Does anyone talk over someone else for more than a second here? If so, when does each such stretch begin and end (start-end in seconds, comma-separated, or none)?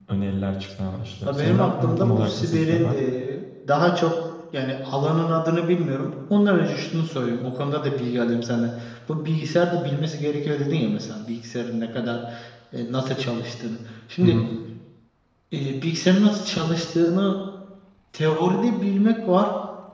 1.3-2.9